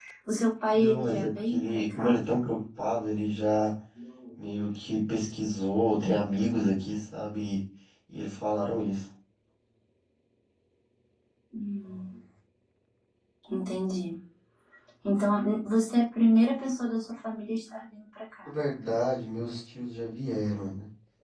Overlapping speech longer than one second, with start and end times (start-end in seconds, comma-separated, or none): 0.7-2.2